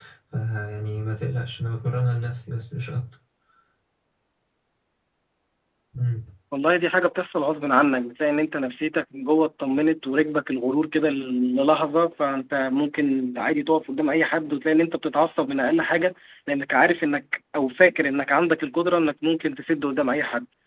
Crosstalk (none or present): none